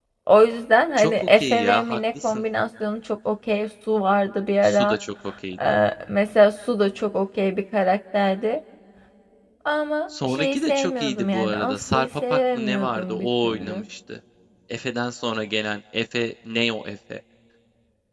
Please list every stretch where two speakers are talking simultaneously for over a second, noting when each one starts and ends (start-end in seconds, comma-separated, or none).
1.0-2.4, 10.2-13.8